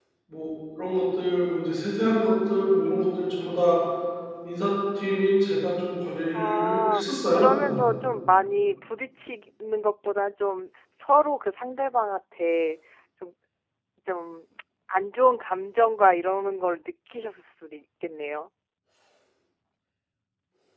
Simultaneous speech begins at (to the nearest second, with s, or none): 6 s